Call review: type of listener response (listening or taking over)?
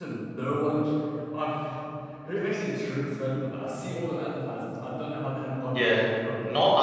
taking over